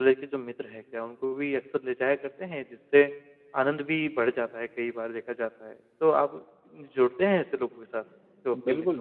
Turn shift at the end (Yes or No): Yes